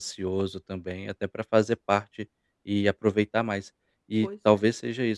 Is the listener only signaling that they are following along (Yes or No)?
Yes